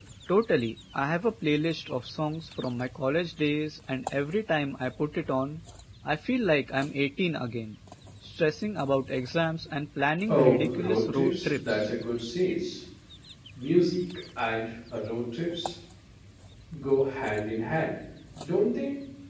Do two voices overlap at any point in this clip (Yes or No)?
Yes